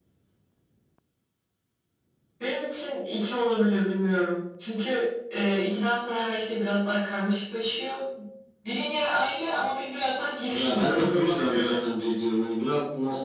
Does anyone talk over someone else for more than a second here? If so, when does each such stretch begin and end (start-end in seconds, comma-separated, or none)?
10.5-11.8